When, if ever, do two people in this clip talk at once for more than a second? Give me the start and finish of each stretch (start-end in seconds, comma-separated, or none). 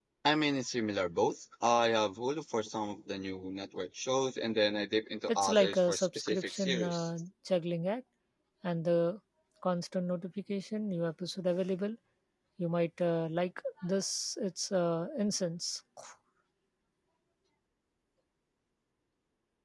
5.3-7.1